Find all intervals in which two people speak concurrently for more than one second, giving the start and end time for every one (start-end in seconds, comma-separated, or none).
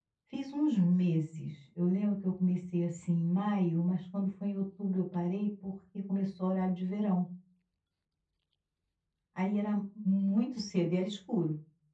none